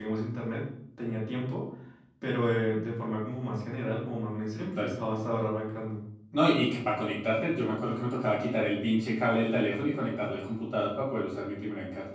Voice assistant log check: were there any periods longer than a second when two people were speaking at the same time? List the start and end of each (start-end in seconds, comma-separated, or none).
none